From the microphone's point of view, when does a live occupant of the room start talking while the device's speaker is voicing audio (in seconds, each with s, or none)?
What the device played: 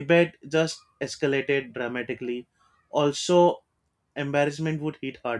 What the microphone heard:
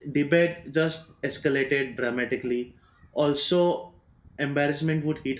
none